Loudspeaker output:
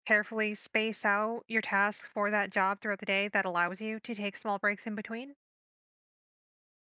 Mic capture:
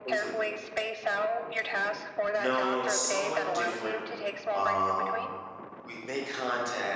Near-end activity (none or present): present